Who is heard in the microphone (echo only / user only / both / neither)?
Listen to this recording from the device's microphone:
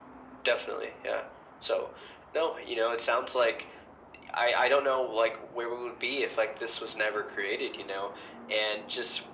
echo only